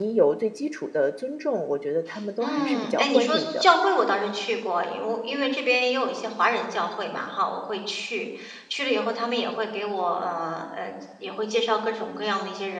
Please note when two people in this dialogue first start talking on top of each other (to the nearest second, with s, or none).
2 s